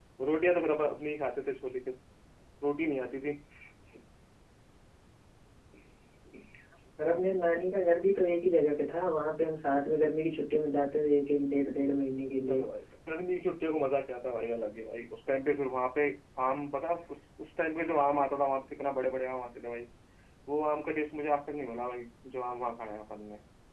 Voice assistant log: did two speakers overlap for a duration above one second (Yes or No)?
No